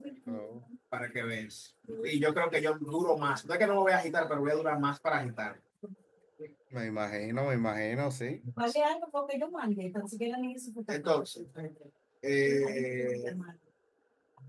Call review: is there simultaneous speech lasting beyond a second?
No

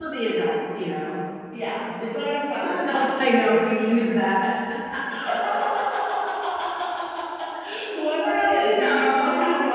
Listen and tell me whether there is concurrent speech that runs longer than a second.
Yes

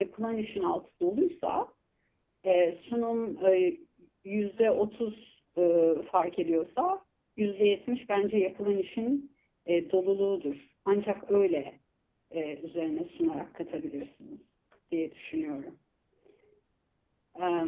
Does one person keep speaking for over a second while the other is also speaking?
No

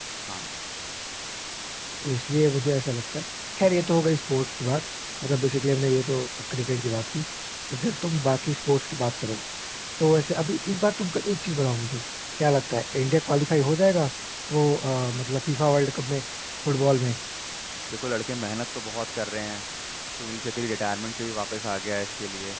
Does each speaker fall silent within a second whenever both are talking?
Yes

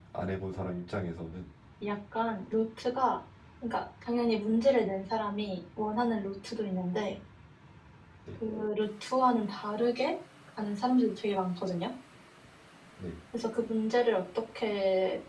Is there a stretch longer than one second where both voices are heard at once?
No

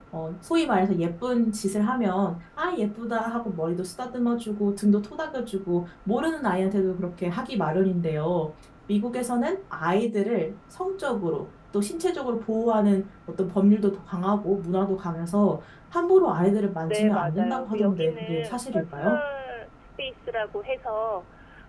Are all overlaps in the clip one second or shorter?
No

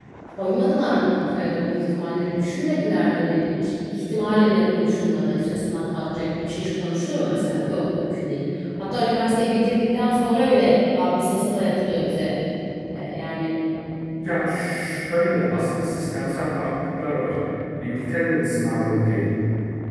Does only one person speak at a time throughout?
Yes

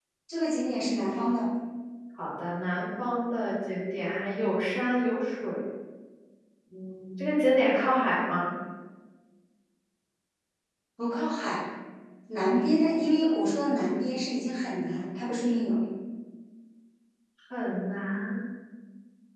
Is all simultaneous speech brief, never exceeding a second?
Yes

